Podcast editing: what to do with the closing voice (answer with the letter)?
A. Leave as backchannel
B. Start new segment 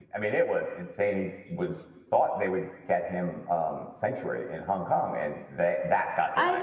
B